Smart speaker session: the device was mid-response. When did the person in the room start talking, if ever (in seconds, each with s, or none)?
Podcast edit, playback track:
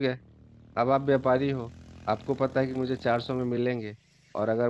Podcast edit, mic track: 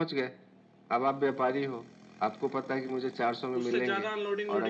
3.6 s